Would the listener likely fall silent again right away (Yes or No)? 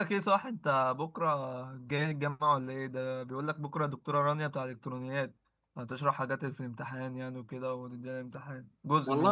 No